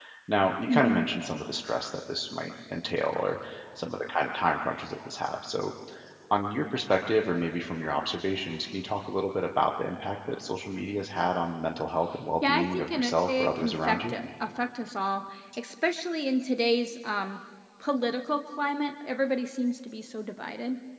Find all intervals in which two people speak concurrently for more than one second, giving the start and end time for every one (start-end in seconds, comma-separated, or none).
12.5-14.1